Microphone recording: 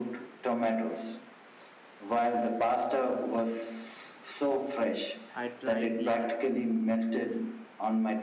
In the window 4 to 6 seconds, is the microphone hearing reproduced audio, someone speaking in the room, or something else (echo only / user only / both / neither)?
both